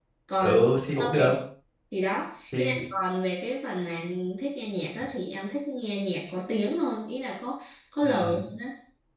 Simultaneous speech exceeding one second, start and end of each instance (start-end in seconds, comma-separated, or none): none